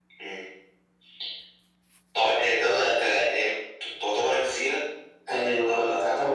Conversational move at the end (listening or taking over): taking over